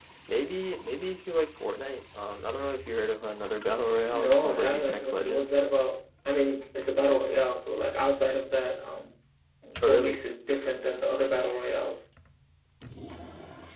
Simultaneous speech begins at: 4.1 s

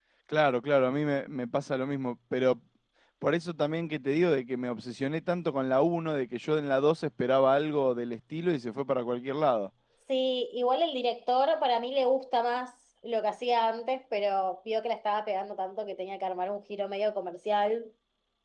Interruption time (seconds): none

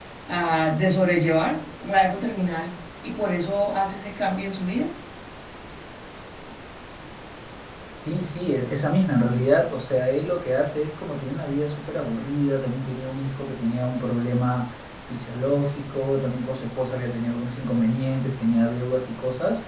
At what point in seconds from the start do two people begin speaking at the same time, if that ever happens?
none

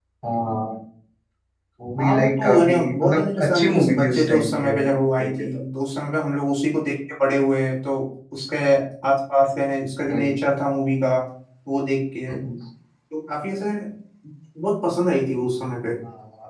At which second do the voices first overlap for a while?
2.0 s

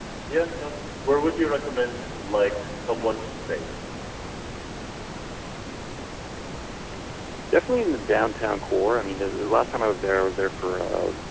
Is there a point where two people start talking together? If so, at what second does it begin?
none

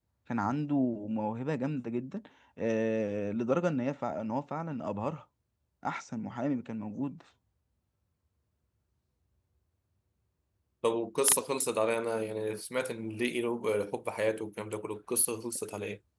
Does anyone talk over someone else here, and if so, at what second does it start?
none

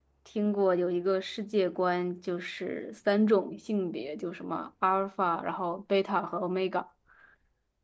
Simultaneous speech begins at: none

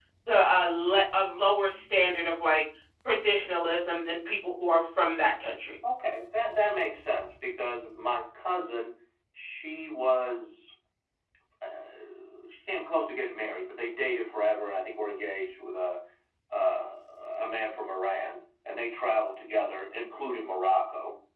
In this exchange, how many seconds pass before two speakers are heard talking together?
none

